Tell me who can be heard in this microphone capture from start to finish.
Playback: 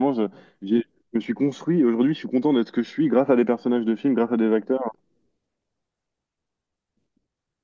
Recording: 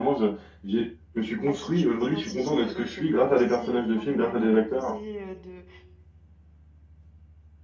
both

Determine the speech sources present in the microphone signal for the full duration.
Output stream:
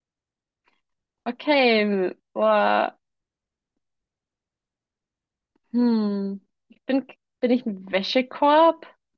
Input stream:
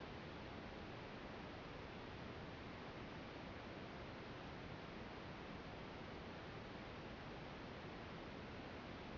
neither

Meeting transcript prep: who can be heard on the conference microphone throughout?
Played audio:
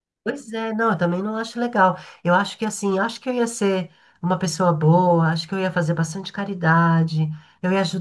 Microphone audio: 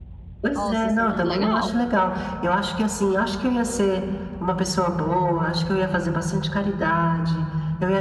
both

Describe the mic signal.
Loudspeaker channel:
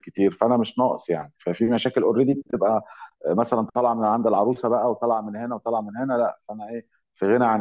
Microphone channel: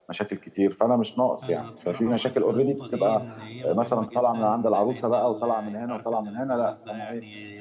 both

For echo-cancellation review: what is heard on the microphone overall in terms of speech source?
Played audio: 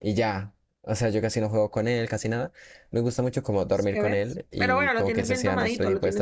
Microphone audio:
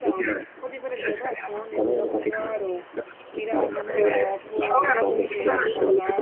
both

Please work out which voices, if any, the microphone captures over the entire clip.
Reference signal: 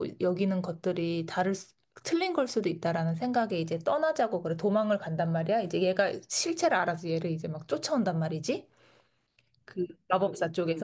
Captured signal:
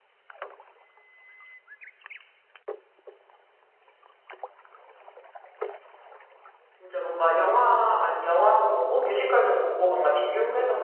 user only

